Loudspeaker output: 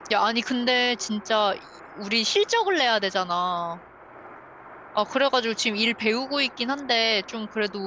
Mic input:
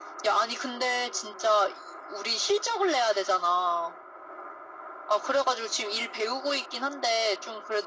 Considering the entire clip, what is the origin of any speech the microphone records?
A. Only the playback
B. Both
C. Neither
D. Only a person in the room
A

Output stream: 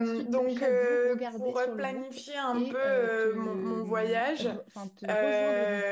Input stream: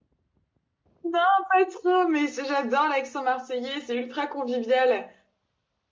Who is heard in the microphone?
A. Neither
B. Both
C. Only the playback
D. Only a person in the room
D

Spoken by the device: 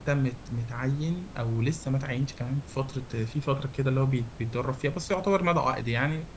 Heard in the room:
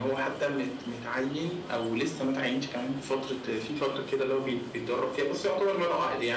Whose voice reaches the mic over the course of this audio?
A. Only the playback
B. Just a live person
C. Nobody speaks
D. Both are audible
A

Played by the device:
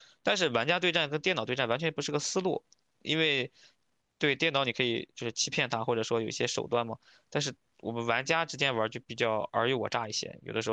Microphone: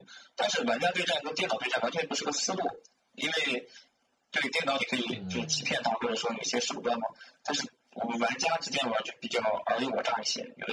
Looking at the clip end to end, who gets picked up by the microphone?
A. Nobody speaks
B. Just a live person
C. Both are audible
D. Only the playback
C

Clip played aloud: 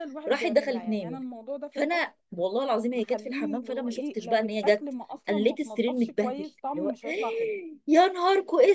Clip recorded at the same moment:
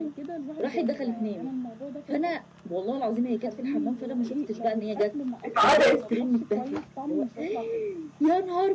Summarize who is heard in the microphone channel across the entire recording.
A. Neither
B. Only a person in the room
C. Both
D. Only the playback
C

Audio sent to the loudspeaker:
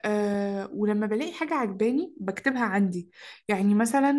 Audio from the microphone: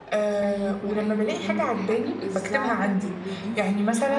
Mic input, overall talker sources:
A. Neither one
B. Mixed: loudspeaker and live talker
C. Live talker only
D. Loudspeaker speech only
B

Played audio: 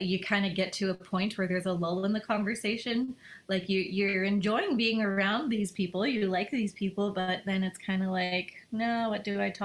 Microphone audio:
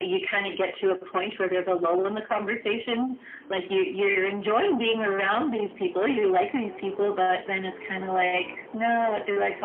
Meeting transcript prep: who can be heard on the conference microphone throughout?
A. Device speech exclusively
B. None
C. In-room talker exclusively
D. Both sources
A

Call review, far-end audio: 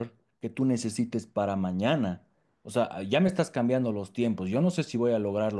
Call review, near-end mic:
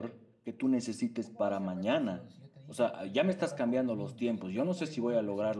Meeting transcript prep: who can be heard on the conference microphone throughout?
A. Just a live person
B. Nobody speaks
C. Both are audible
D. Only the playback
C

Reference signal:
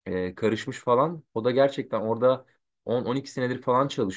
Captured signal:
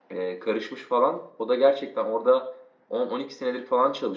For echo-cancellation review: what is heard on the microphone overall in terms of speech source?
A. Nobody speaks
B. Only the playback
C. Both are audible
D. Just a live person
B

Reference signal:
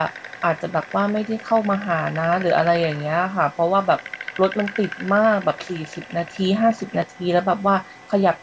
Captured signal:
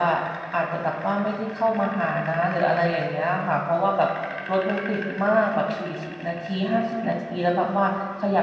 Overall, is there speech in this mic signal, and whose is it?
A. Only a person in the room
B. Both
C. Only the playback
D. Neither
C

